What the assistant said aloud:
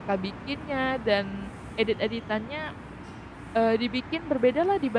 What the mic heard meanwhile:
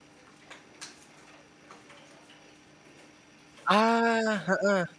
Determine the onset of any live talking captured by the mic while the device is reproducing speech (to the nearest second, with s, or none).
4 s